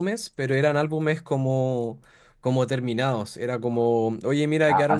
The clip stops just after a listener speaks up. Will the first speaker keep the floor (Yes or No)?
Yes